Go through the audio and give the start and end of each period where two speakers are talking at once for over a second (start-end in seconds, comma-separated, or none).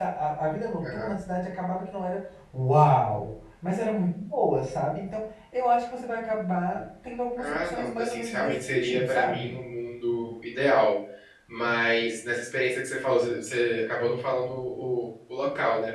7.4-9.6